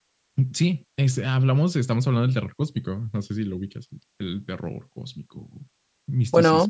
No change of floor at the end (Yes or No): No